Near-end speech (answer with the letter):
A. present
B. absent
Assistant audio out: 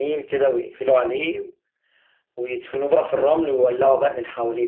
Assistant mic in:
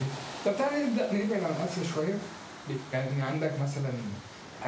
A